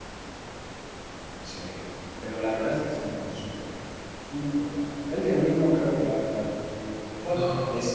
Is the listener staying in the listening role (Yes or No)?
Yes